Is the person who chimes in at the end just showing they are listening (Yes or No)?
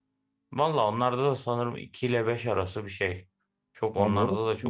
No